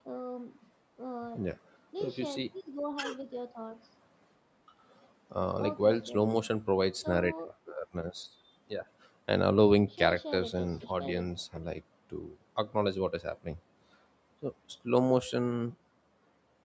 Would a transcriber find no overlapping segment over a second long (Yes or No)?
No